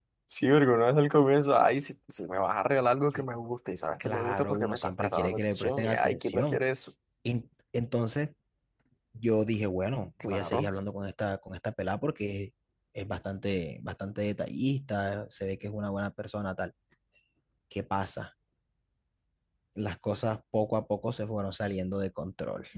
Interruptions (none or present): present